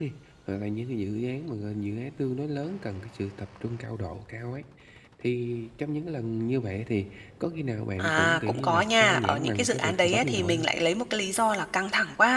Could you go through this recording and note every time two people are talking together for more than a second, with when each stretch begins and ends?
8.0-10.7

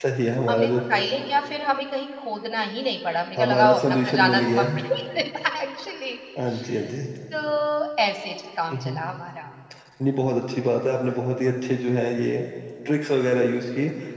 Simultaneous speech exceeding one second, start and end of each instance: 3.4-4.6

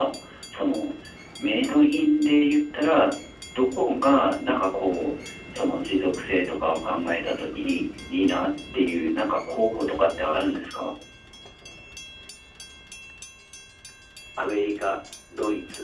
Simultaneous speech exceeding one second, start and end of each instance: none

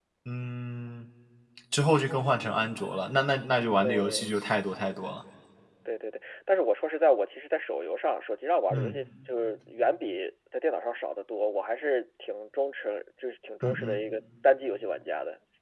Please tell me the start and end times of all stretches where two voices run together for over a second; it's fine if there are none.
none

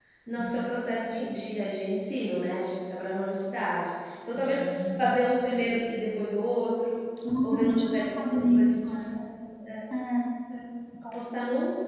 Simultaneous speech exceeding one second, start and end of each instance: 7.4-9.1

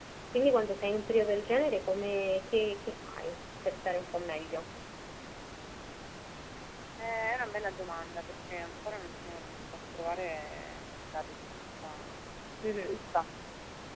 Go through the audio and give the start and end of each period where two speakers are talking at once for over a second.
none

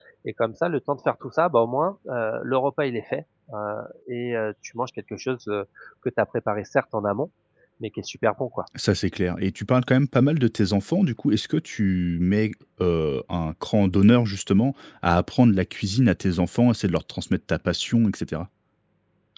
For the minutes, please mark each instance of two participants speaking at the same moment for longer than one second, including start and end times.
none

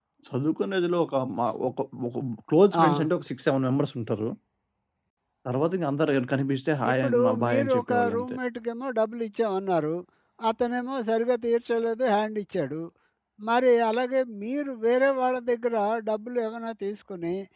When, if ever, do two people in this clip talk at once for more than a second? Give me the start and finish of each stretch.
6.9-8.4

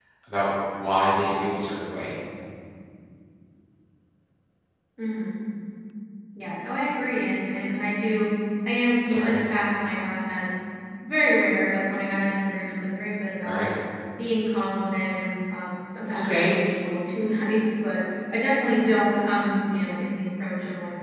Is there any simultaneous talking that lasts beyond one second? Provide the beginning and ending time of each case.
none

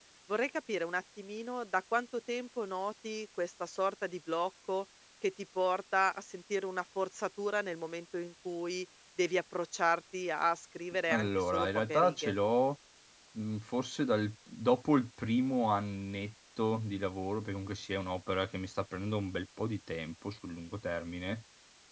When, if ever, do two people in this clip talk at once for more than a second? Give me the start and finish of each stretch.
11.1-12.3

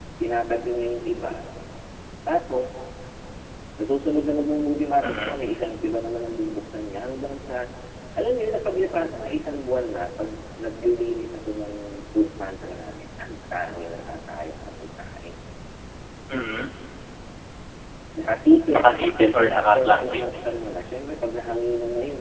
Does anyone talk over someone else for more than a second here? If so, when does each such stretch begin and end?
18.7-20.2

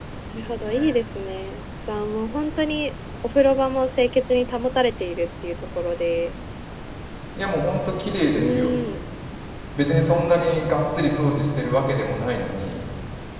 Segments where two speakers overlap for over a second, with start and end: none

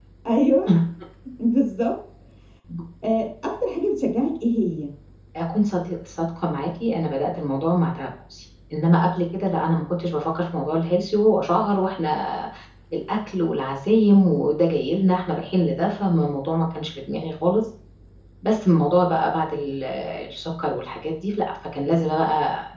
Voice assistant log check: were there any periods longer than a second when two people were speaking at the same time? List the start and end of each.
none

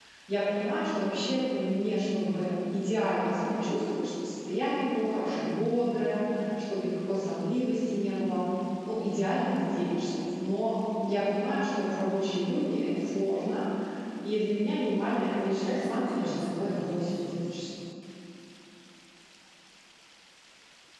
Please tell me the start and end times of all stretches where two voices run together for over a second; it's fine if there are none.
15.2-17.3

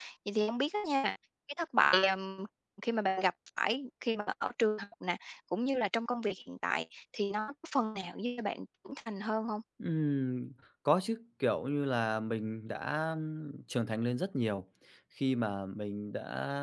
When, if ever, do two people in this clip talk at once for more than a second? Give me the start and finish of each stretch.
none

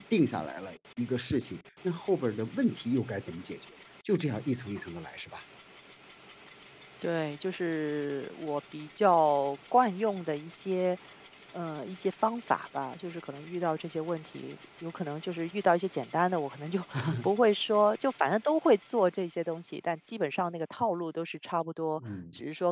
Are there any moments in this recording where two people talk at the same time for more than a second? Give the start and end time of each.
none

